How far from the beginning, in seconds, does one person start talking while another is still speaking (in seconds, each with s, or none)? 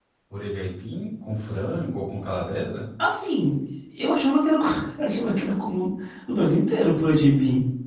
none